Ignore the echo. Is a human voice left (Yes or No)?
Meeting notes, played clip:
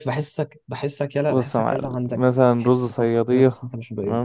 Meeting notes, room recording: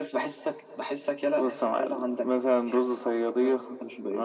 No